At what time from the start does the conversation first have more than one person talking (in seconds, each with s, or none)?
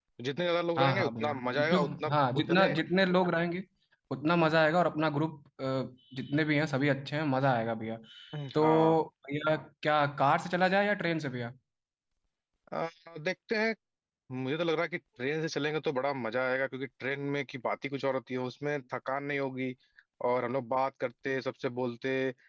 0.8 s